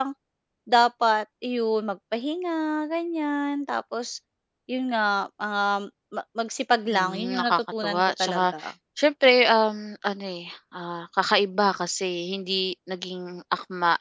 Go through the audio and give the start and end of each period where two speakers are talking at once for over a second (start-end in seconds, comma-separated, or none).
6.9-8.4